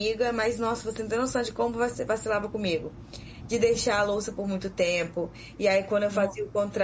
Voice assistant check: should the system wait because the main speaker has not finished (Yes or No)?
Yes